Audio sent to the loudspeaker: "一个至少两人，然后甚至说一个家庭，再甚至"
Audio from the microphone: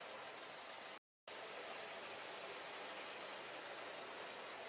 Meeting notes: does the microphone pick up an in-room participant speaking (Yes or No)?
No